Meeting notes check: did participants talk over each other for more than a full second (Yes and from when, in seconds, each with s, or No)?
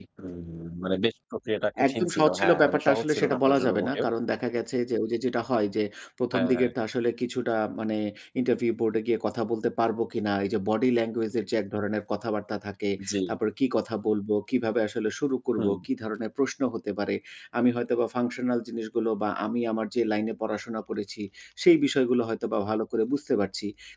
Yes, from 1.9 s